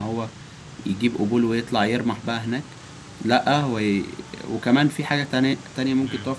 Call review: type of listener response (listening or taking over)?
taking over